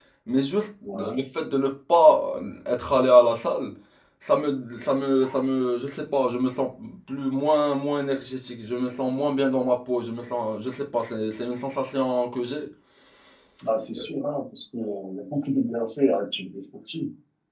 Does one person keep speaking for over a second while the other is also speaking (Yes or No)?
No